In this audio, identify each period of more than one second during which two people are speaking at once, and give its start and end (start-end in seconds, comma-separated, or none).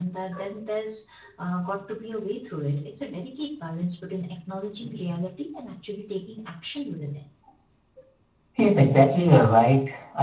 none